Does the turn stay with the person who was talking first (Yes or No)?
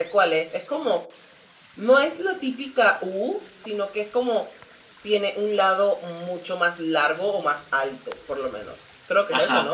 No